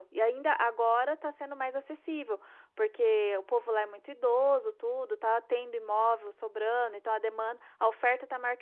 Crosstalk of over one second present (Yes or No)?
No